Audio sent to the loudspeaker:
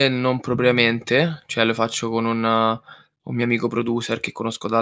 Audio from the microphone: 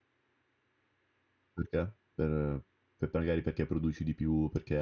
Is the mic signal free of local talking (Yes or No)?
No